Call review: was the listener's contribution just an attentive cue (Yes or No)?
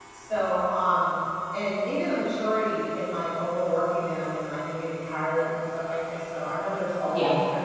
Yes